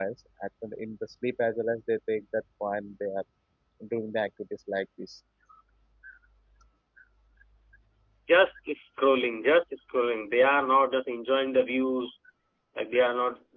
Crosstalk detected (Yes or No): No